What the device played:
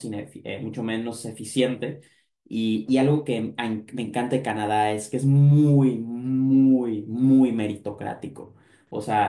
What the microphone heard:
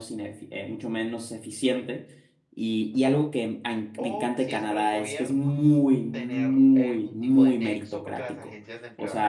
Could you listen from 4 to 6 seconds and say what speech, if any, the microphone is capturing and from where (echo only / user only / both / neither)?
both